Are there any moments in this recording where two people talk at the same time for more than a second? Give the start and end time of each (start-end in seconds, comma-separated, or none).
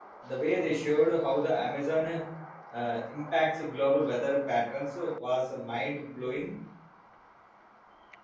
none